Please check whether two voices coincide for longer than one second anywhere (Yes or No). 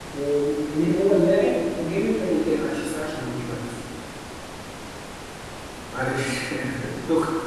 No